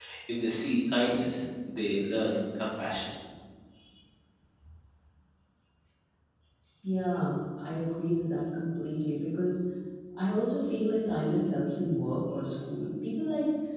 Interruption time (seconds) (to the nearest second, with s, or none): none